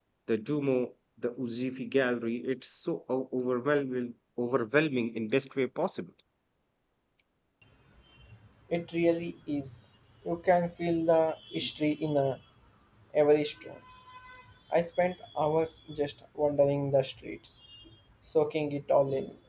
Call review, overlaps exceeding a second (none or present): none